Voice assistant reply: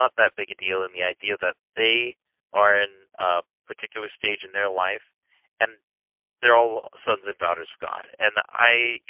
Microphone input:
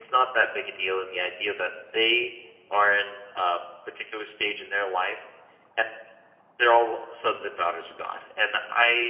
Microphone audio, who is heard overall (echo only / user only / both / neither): echo only